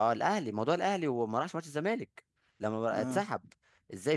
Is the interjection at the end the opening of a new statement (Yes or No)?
No